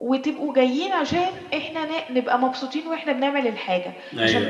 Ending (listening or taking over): listening